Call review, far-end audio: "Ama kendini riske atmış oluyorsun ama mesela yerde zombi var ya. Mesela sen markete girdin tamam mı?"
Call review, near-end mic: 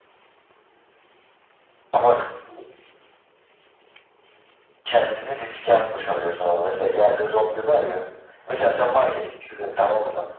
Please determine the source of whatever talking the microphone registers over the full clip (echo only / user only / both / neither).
echo only